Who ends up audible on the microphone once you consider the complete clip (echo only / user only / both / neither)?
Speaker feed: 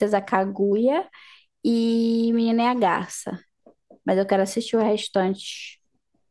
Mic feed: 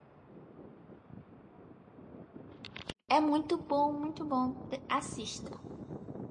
user only